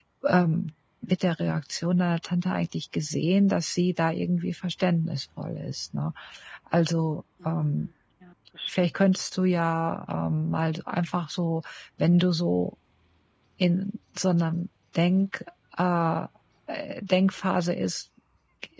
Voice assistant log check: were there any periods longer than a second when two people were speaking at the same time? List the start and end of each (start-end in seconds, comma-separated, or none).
none